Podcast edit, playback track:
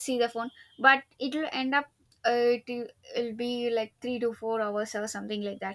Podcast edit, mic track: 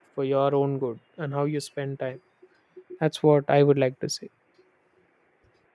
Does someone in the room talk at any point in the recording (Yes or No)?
Yes